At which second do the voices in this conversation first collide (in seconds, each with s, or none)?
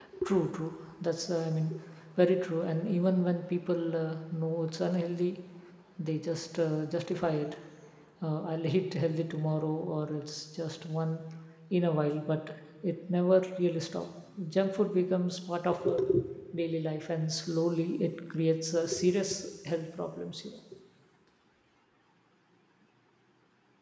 none